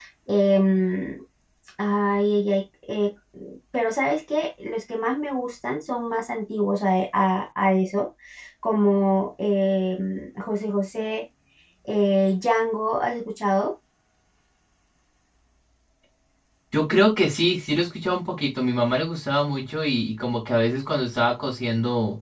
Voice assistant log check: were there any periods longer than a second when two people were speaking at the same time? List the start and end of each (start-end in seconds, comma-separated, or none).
none